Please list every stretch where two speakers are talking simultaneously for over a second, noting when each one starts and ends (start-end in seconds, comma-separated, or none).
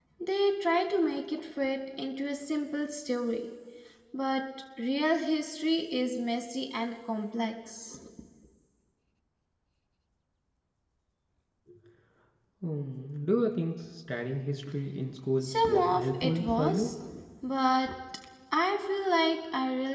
15.4-16.9